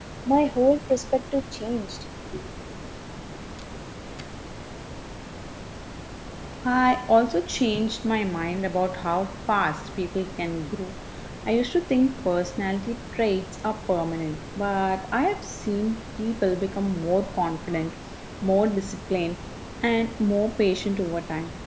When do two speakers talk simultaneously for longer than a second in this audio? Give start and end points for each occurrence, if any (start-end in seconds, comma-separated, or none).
none